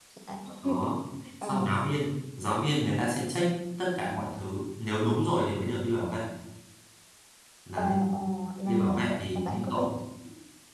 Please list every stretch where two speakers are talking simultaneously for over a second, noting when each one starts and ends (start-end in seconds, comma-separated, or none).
8.7-9.9